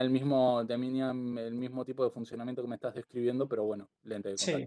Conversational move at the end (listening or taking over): taking over